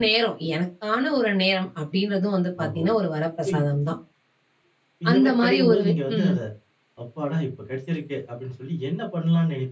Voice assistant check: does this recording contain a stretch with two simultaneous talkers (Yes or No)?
Yes